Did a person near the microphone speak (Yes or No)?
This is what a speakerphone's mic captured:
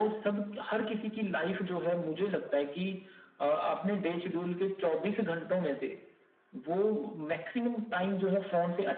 No